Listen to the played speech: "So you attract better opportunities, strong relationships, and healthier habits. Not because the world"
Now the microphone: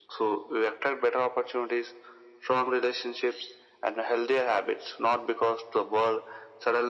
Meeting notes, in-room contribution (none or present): none